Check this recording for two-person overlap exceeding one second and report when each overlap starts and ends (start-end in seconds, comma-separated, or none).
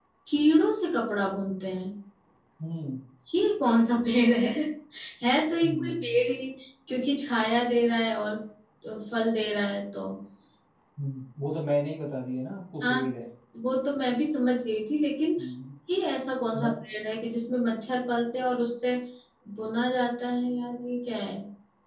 none